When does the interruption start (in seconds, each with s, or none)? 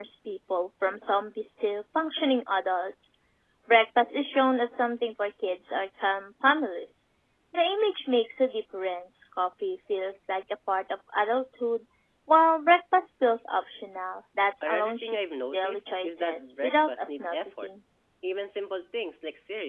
14.6 s